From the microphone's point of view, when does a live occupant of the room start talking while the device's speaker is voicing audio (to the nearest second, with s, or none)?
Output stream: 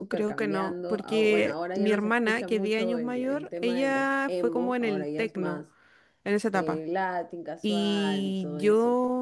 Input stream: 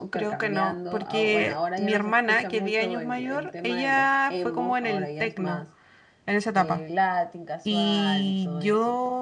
none